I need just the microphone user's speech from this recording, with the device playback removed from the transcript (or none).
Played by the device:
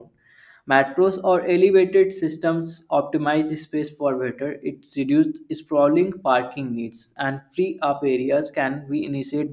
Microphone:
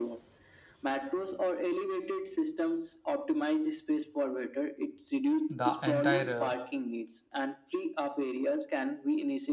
the entire uh,